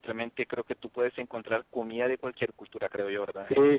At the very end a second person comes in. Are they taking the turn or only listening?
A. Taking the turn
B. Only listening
A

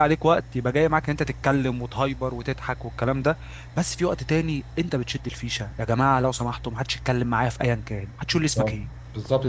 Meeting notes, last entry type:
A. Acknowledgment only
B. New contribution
B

